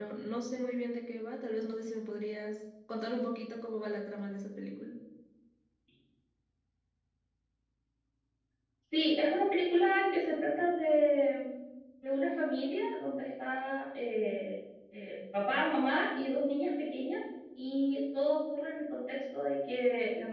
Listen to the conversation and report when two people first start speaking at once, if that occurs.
none

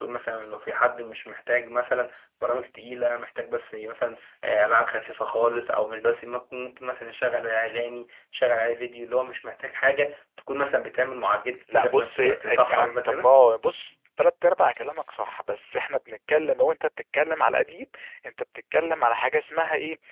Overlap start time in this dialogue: 11.7 s

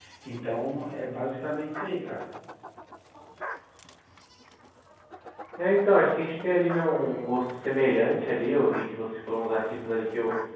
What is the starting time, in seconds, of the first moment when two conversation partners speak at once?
none

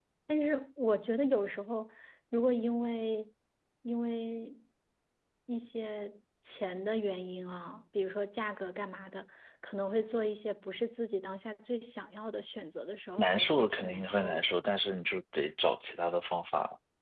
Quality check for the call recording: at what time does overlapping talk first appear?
13.2 s

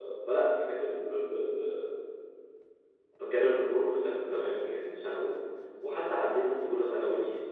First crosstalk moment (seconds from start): none

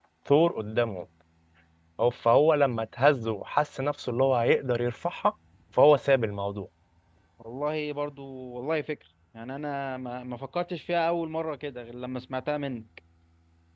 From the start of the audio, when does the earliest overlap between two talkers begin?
none

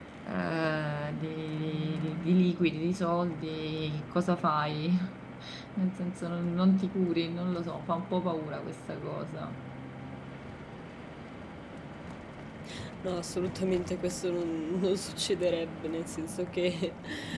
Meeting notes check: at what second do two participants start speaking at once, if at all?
none

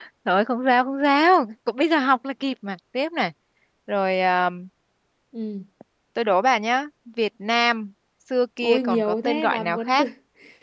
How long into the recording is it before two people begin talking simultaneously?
8.6 s

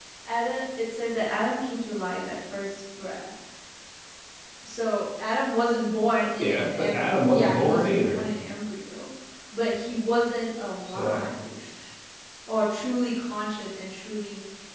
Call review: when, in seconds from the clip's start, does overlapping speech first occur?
6.4 s

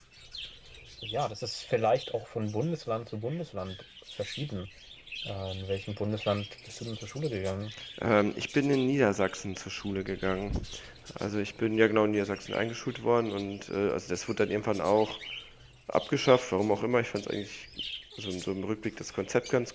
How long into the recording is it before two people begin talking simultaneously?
none

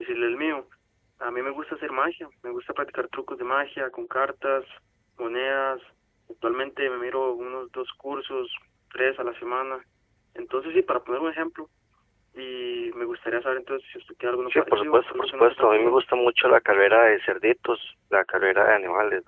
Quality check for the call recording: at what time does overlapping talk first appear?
14.5 s

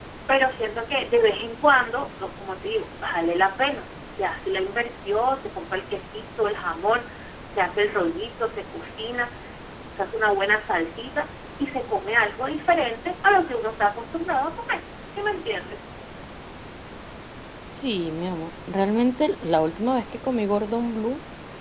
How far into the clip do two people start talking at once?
none

